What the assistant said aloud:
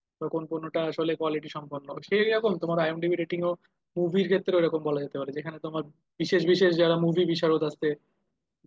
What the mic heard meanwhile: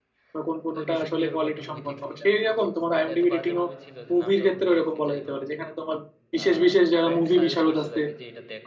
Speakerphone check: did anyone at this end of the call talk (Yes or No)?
Yes